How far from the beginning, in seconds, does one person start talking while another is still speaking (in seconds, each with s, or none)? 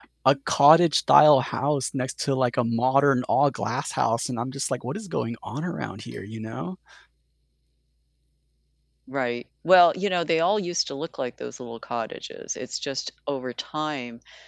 none